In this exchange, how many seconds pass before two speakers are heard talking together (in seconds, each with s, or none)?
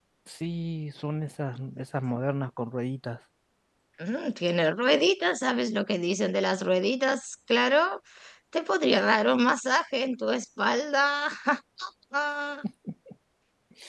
none